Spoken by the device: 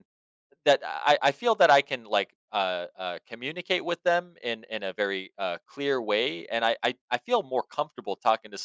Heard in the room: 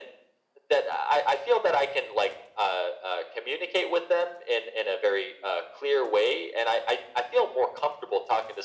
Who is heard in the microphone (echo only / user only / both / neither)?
echo only